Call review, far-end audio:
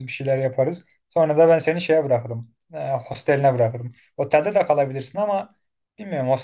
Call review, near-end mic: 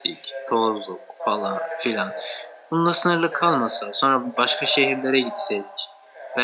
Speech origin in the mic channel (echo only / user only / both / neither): both